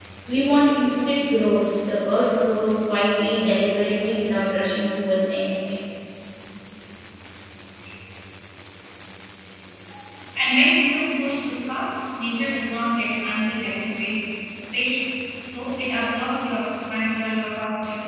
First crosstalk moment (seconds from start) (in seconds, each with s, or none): none